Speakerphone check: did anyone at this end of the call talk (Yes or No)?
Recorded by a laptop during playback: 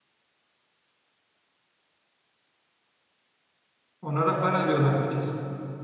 Yes